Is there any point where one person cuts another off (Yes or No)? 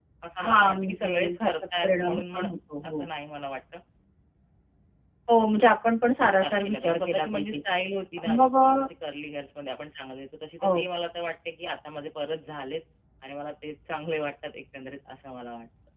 Yes